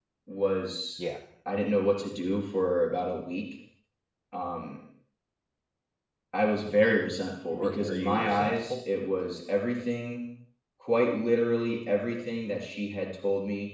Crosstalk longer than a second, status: present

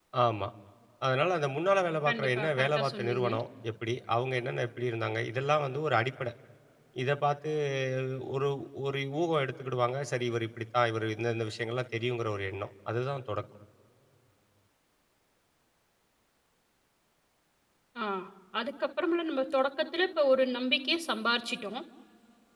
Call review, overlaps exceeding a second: present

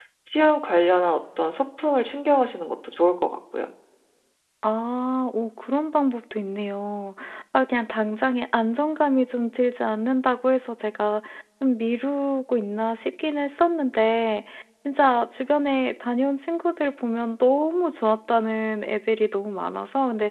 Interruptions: none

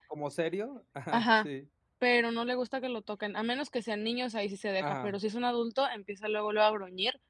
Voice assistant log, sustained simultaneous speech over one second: none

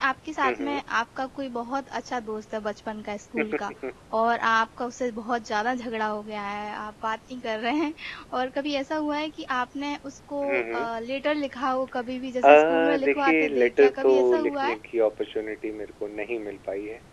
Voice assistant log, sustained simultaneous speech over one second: present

